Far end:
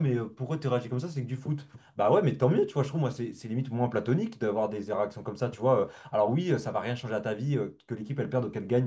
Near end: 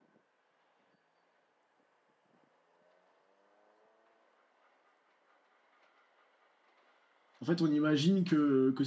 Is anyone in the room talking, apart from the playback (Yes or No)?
Yes